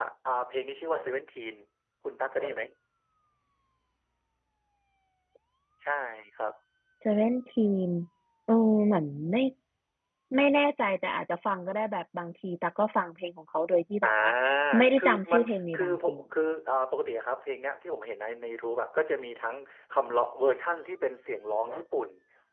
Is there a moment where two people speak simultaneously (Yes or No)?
Yes